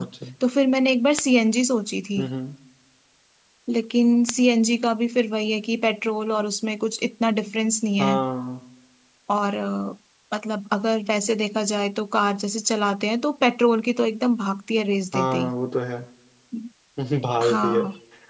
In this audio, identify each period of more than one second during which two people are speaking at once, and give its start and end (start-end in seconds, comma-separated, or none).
none